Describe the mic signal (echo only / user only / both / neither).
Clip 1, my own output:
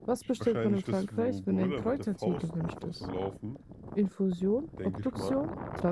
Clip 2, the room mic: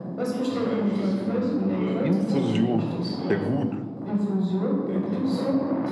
both